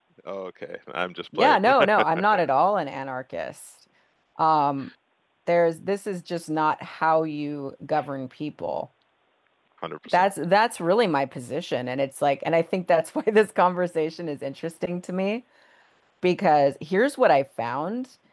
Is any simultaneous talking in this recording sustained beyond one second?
No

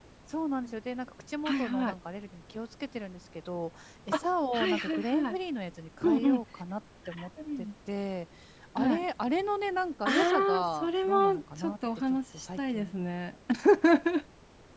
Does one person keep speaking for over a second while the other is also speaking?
Yes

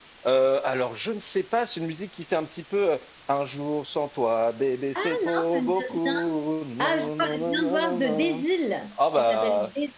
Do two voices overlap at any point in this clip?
Yes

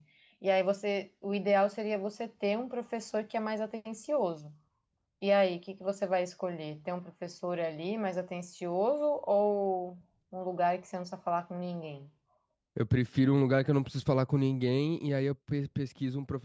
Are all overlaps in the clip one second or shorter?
Yes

